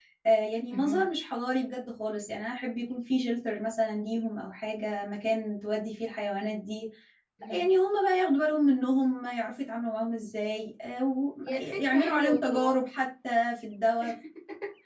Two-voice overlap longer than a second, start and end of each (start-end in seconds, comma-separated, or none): 11.5-12.7